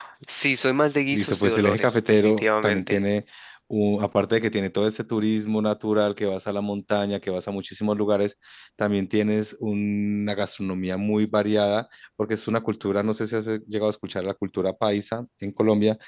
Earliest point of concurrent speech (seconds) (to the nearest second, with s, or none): 1 s